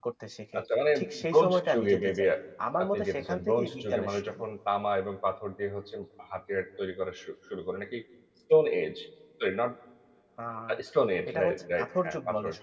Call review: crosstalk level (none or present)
present